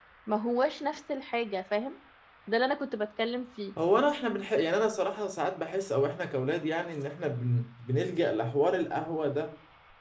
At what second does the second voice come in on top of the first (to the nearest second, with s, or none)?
none